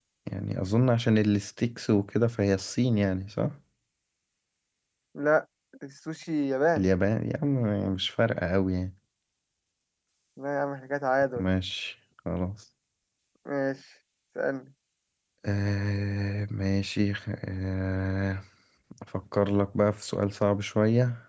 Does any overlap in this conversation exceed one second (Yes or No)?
No